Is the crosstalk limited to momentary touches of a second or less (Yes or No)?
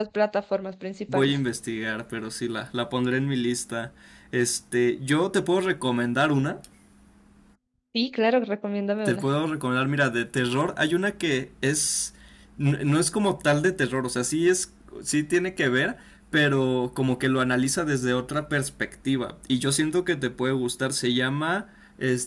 Yes